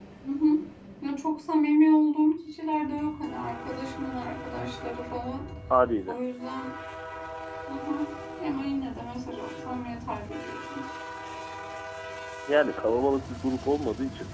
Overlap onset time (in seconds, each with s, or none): none